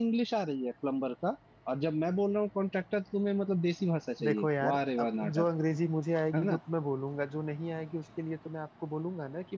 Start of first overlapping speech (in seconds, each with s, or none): 4.2 s